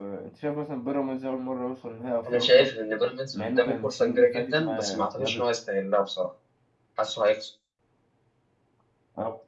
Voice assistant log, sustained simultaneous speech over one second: present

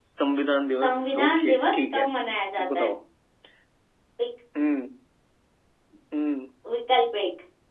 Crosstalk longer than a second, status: present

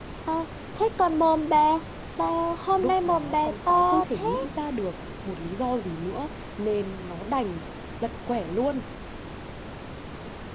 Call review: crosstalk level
present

